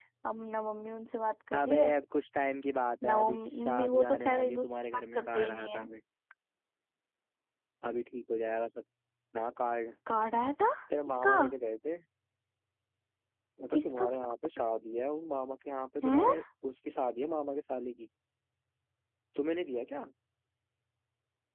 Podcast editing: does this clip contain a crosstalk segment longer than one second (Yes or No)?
Yes